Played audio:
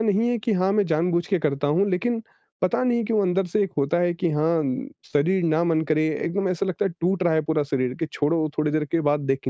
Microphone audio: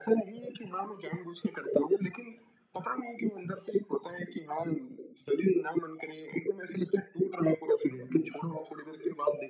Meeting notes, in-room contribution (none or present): none